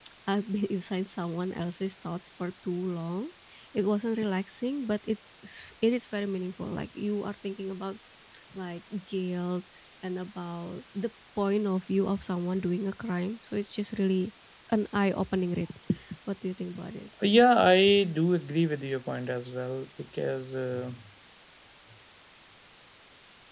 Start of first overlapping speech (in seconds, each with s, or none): none